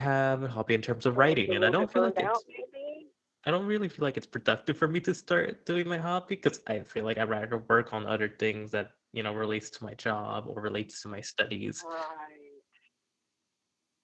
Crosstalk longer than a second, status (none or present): present